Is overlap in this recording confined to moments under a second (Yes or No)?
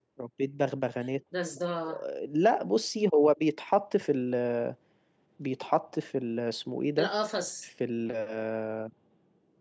Yes